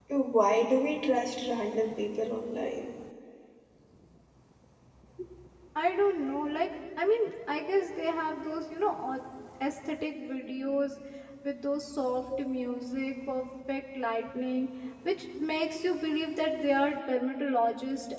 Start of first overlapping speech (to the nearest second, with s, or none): none